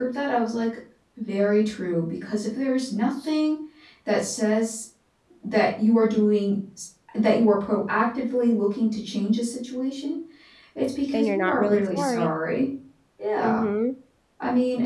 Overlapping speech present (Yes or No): Yes